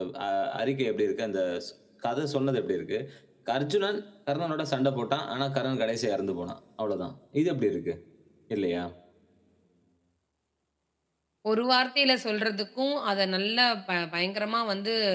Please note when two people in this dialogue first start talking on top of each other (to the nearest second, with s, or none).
none